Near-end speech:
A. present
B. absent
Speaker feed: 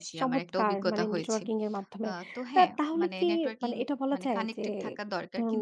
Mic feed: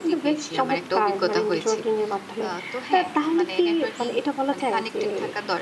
B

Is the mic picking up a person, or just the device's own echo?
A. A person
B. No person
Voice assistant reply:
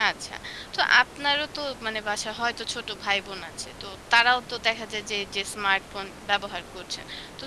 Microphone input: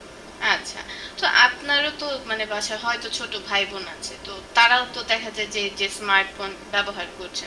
B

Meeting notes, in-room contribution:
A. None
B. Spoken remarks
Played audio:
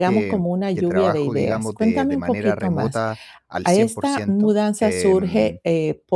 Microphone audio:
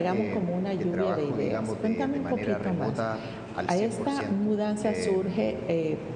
A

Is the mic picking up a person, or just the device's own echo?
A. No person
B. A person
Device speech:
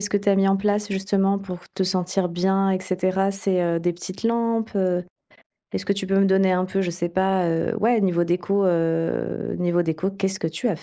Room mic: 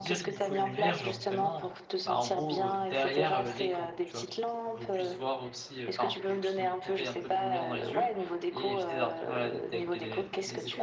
B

